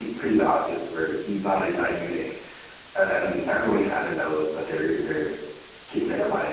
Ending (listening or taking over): taking over